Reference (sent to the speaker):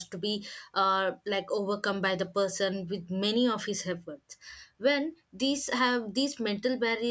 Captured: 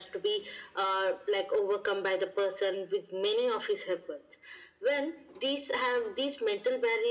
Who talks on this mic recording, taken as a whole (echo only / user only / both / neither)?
echo only